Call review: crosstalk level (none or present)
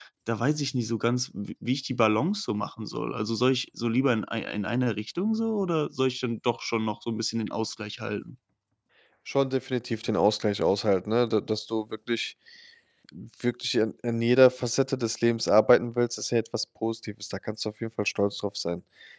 none